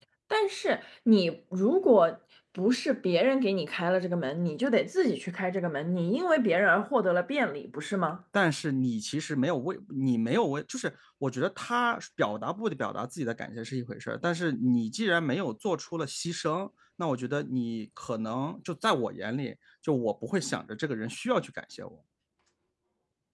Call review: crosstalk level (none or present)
none